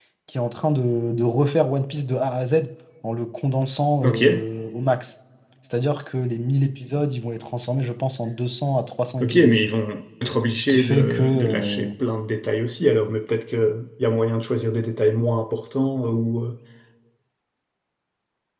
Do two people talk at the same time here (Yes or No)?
Yes